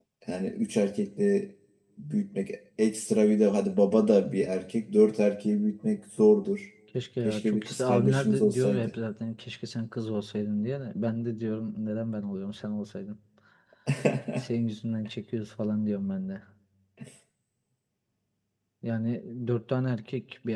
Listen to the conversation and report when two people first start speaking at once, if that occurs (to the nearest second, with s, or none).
7 s